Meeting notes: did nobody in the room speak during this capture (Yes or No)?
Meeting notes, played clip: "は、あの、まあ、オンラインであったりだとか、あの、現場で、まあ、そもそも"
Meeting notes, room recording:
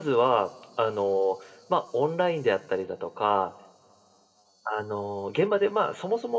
Yes